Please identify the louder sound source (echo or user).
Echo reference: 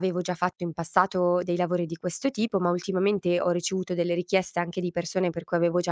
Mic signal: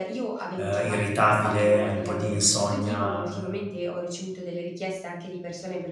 user